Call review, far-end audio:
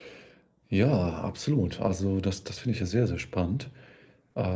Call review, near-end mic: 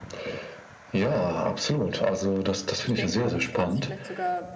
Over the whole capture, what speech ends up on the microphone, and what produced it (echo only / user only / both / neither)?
both